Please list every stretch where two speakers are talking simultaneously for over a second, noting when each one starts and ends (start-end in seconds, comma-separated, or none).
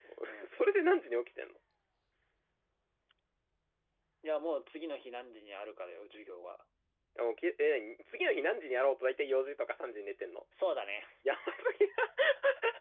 none